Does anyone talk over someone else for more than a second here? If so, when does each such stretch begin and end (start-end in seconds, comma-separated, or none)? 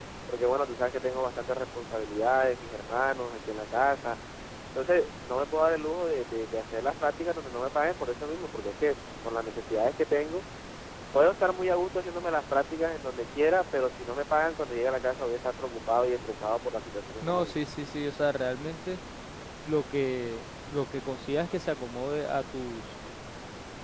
none